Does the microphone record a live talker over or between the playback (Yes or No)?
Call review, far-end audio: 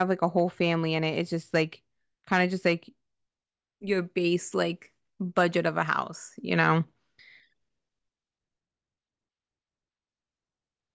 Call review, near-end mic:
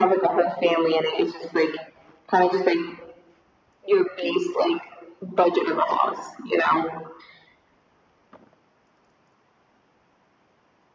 No